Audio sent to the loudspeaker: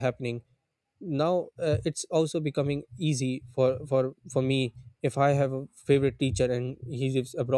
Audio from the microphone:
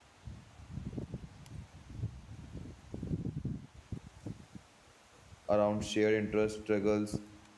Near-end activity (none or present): present